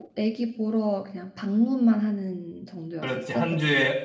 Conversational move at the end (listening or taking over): taking over